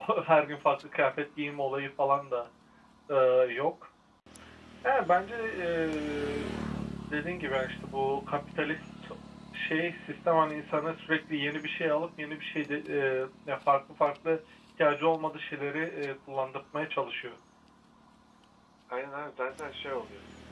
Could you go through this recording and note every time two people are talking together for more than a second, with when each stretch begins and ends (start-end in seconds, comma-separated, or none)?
none